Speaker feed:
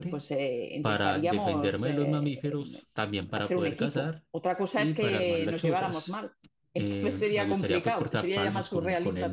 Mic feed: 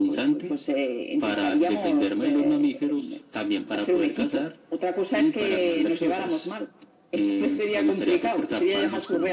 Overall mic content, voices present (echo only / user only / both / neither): echo only